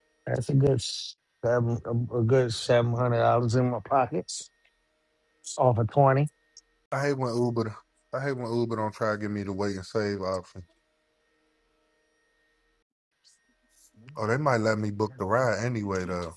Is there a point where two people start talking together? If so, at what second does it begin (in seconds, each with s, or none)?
none